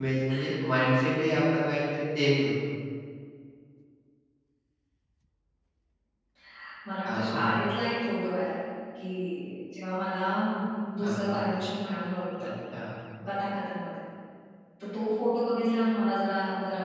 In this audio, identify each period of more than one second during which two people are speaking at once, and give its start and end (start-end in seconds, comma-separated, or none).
none